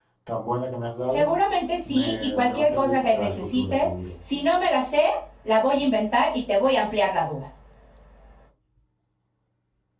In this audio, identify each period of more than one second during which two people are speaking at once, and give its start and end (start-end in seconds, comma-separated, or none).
1.9-3.9